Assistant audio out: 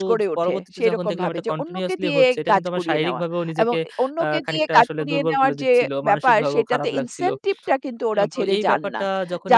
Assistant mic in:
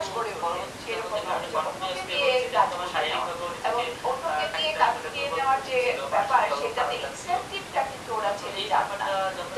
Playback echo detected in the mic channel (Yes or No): Yes